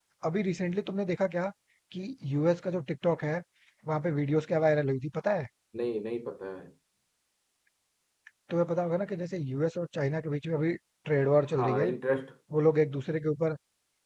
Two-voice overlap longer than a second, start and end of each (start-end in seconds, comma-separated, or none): none